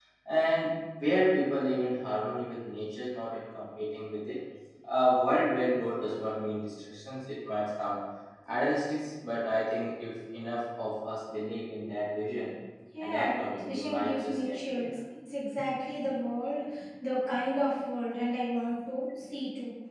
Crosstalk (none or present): present